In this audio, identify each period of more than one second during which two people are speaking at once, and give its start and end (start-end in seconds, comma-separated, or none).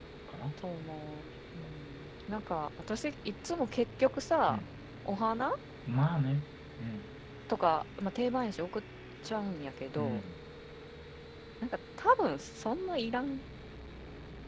none